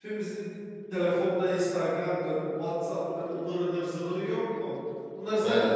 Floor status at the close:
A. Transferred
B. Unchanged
B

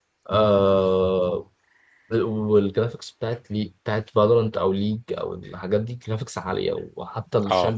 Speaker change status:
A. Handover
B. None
B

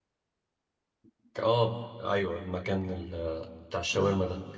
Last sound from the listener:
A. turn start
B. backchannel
B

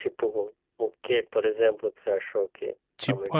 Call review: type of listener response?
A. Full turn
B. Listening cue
A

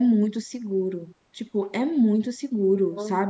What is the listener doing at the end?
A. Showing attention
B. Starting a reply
A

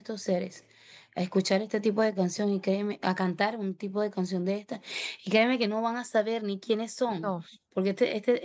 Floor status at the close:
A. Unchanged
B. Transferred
A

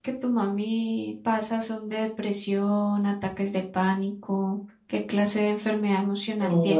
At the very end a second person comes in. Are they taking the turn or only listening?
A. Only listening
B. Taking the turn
B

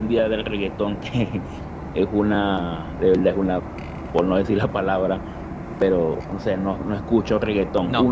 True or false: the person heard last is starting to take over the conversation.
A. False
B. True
A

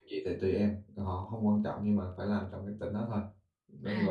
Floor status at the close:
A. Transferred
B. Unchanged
A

